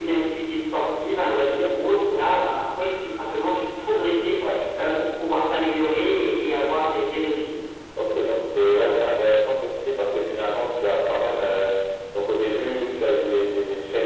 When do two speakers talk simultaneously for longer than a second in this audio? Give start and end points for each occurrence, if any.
none

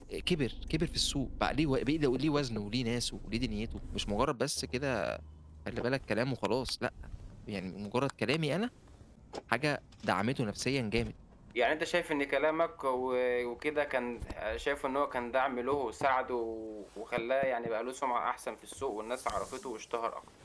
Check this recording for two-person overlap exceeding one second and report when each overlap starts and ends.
none

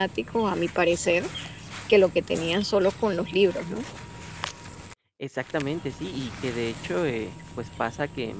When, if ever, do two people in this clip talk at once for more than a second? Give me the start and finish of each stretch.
none

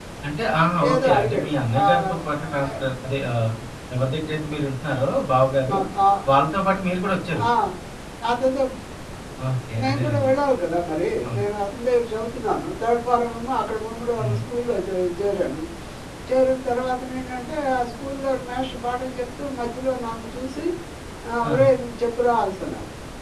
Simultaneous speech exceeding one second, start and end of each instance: 0.9-2.8

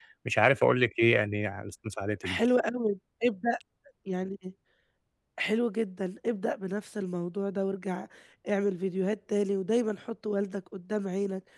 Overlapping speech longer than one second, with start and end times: none

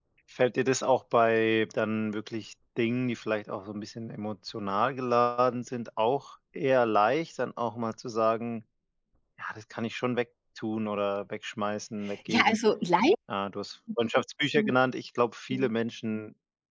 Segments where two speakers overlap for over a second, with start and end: none

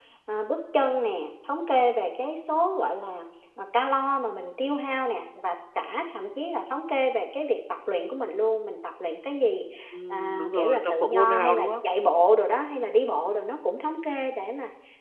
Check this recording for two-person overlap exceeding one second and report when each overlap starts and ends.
10.1-11.7

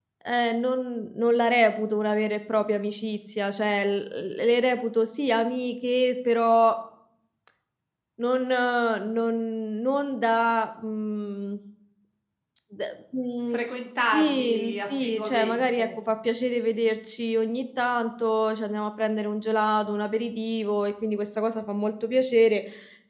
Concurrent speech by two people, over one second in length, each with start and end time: 14.0-15.8

